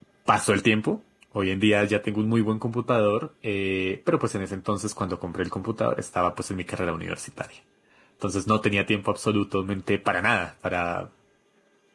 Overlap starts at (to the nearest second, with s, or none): none